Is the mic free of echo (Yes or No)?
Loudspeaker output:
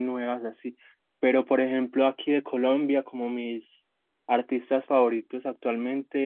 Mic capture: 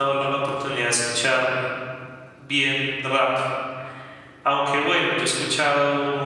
Yes